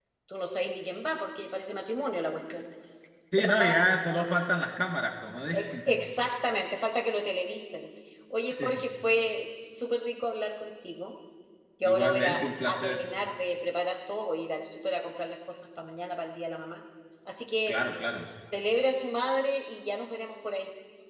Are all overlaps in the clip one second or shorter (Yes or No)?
No